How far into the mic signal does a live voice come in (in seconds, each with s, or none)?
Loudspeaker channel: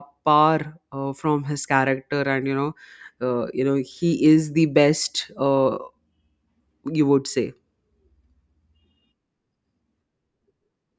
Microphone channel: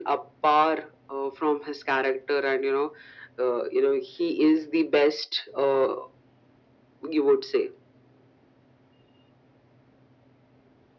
none